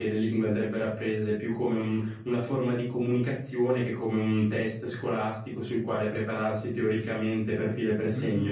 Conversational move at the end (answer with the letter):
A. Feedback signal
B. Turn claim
B